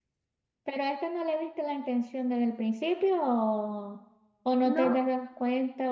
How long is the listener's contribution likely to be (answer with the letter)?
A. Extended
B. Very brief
B